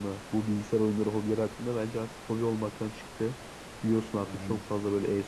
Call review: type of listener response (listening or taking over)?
listening